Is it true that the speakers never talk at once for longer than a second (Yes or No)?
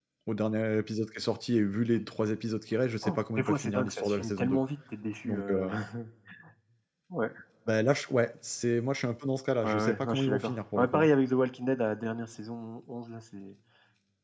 No